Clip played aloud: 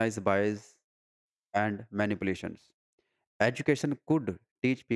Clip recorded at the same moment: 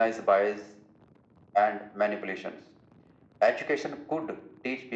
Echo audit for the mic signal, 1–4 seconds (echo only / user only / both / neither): echo only